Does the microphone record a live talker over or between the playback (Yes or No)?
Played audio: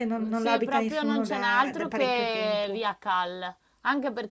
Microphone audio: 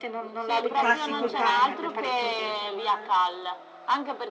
Yes